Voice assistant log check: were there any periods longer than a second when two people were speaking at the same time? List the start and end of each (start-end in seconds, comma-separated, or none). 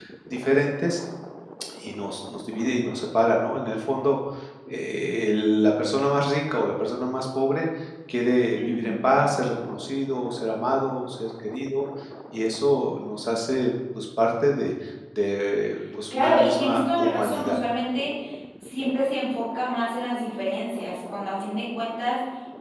16.1-17.6